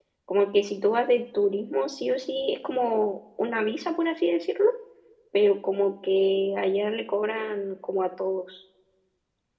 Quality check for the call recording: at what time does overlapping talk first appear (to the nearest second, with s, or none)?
none